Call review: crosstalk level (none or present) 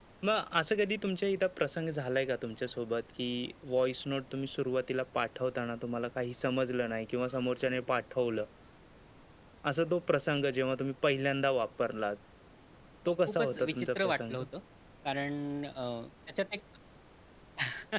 present